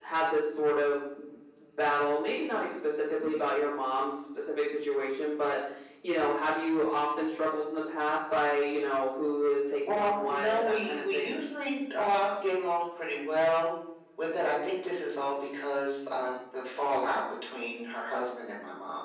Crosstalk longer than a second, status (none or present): present